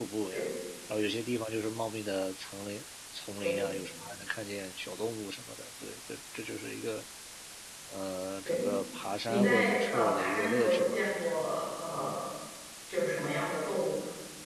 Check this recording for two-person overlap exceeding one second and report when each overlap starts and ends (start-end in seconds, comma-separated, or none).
9.3-11.0